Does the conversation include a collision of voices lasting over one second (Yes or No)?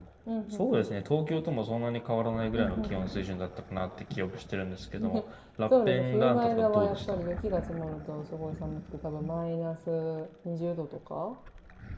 Yes